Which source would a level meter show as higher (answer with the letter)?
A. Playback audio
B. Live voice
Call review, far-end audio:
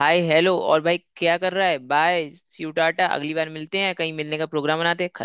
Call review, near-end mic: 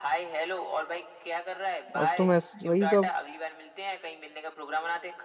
B